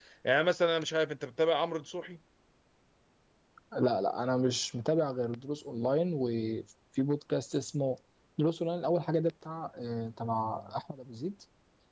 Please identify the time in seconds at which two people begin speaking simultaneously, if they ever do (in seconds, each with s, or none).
none